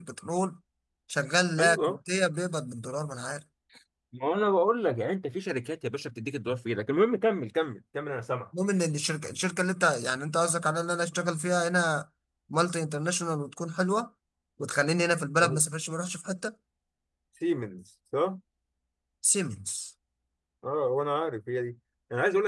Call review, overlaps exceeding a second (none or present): none